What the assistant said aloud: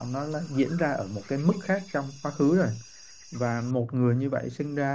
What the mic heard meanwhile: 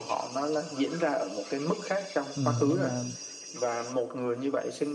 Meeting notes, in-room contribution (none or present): present